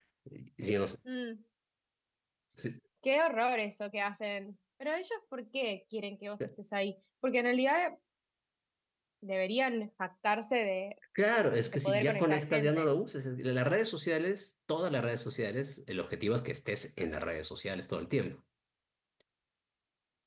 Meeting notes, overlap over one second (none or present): present